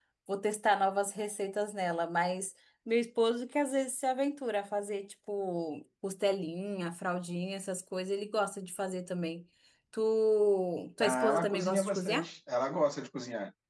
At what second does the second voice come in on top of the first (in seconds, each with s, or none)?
11.0 s